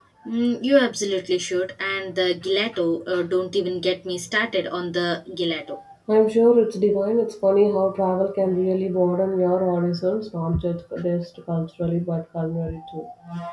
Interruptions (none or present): none